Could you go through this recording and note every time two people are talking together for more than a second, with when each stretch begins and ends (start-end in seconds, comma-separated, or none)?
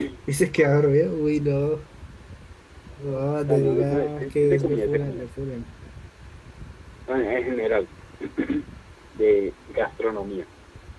3.5-5.2